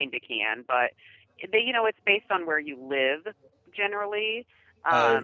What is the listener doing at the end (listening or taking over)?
taking over